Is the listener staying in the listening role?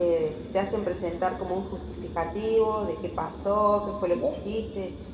Yes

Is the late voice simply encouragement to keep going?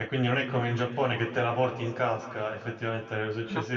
Yes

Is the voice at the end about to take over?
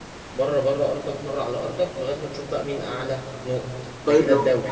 Yes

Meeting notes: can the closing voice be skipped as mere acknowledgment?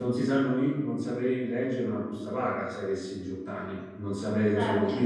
Yes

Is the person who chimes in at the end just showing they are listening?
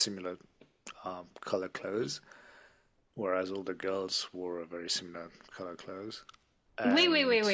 No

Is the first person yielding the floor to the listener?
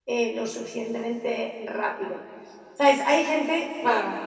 No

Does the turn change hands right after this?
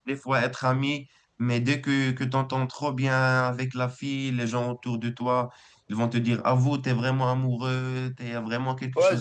Yes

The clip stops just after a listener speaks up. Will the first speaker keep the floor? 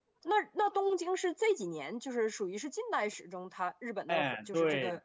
No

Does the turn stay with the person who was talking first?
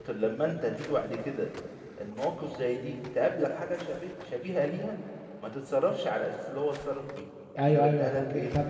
No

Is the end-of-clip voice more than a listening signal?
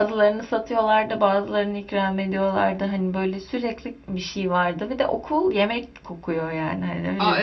Yes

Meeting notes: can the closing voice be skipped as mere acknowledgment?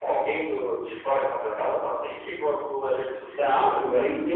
No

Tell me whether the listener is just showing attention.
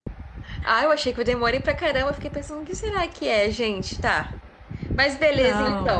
No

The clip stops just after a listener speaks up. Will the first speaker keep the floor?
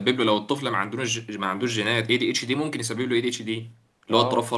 No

